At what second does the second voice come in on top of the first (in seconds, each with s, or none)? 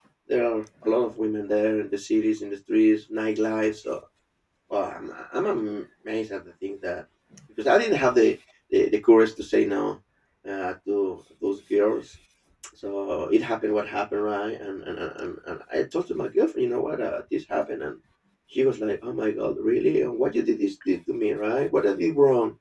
none